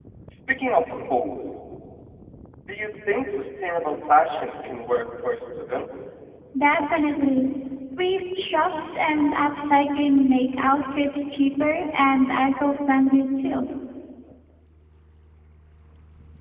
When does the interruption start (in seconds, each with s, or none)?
none